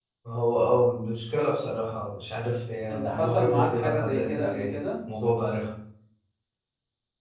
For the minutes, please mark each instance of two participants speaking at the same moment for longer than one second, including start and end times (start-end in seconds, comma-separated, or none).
2.9-4.8